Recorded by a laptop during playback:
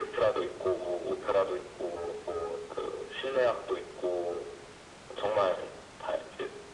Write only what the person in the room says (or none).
none